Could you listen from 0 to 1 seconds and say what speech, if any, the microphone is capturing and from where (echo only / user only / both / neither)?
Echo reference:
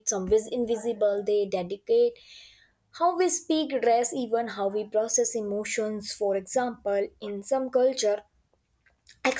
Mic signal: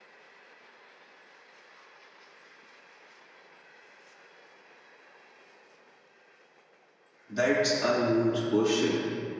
neither